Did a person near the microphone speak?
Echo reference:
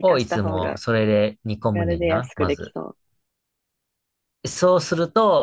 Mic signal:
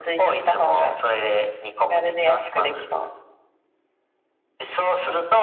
No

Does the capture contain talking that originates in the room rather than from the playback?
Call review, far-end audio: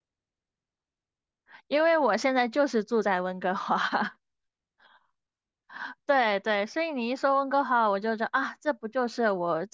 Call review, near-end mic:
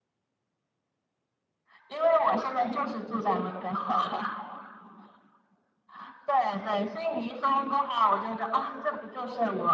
No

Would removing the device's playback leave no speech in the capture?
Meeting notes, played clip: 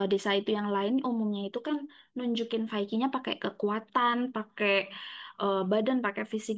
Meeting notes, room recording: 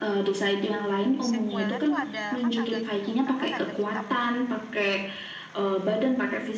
No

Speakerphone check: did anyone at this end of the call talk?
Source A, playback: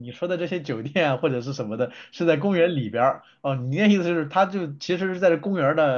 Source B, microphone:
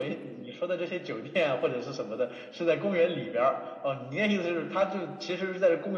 No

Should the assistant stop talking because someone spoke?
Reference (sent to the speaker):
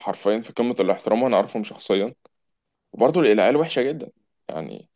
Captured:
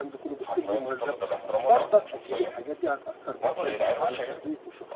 Yes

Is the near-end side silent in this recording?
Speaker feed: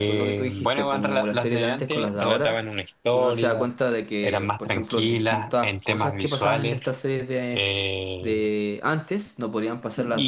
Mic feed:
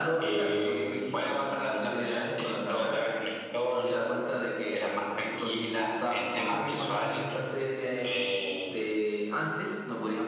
Yes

